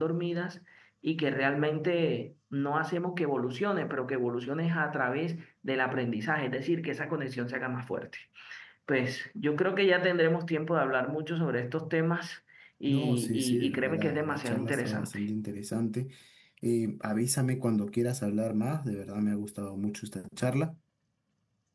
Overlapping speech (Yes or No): Yes